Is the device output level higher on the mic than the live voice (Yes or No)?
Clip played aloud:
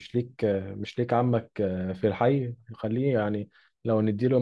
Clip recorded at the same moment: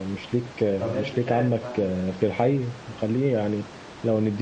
Yes